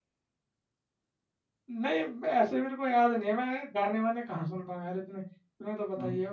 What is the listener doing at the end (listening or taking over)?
listening